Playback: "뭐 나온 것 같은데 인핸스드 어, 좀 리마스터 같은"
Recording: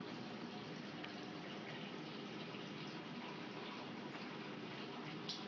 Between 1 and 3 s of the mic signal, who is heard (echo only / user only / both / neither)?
neither